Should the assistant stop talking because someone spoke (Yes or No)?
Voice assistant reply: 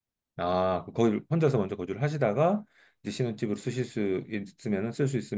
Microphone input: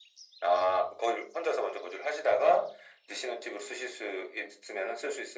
No